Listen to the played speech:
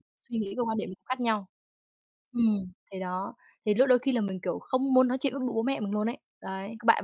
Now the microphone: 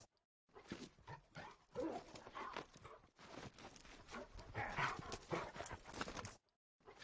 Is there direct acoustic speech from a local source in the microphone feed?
No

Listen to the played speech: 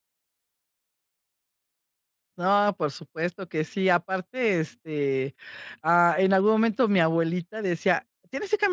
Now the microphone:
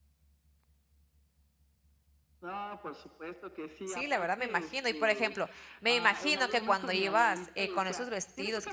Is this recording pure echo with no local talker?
No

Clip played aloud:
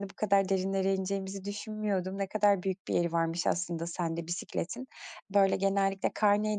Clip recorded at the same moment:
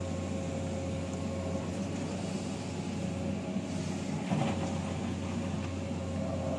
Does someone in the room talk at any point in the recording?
No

